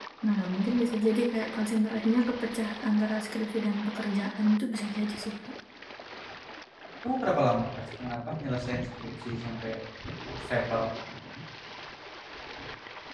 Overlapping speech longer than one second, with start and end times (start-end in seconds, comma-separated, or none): none